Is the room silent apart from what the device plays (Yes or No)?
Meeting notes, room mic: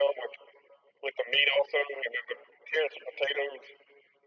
Yes